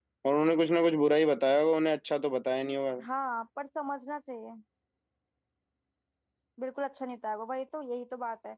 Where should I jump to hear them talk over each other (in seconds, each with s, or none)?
none